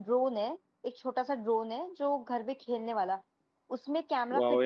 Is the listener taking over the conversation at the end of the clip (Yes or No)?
No